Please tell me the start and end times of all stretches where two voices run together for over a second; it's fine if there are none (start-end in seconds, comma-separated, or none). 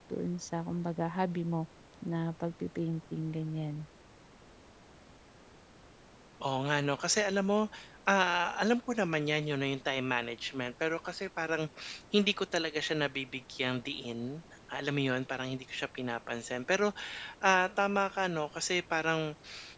none